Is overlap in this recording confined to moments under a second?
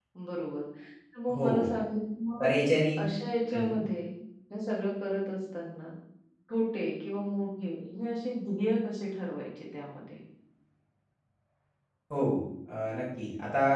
Yes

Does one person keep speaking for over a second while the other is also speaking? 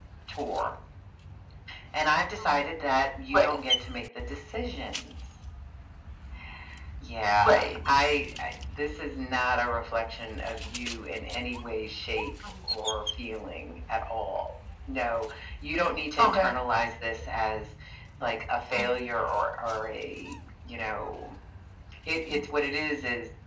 No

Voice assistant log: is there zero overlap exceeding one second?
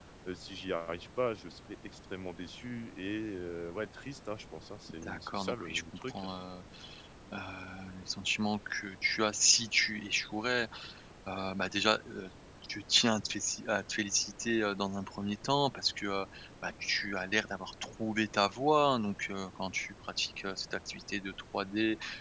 No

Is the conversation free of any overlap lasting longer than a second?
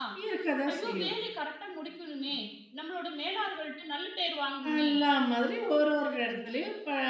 Yes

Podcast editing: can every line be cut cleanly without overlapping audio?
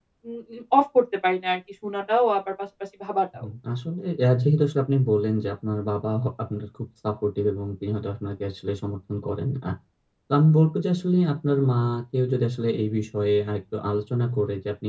Yes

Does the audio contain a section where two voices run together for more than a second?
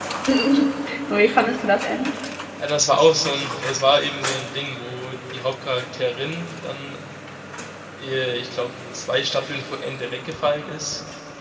No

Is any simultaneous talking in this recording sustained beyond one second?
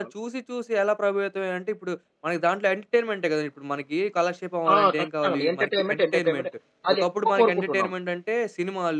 Yes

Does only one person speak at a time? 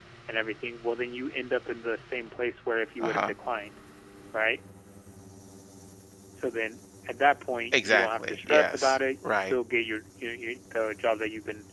No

